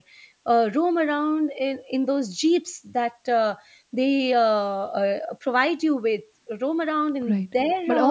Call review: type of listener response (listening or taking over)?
taking over